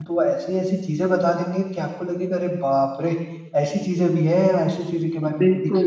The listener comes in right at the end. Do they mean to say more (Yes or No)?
No